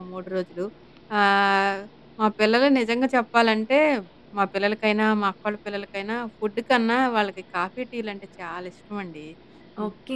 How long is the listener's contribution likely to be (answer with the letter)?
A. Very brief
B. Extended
B